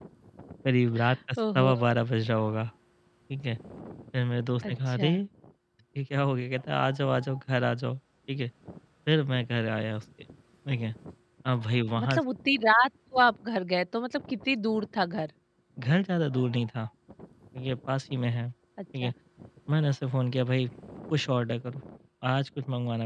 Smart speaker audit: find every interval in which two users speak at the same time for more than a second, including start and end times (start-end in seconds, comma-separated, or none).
none